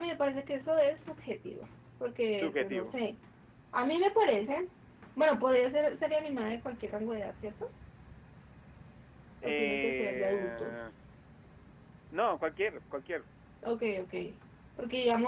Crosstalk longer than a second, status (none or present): present